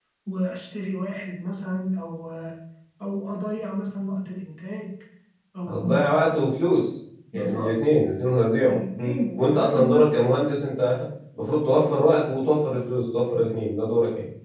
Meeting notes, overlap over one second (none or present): present